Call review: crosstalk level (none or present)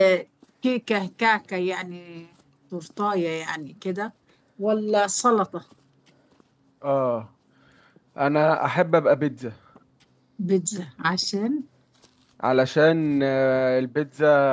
none